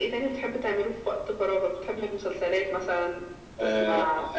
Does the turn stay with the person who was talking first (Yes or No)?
No